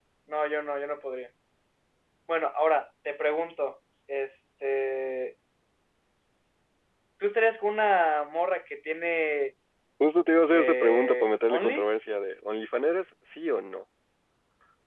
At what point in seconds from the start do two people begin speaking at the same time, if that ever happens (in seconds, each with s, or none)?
10.5 s